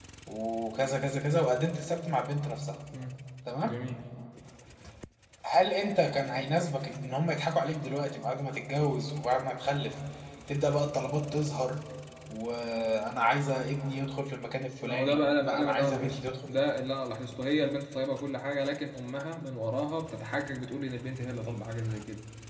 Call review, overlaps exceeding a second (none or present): present